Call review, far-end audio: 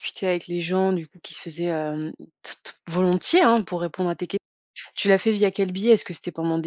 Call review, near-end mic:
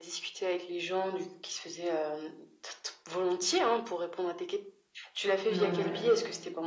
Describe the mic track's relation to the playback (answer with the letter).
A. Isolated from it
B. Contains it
B